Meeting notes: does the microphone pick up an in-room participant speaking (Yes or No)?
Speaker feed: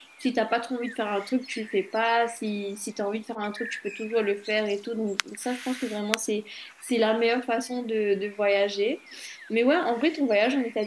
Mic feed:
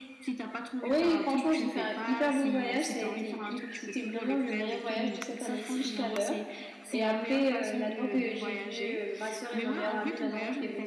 Yes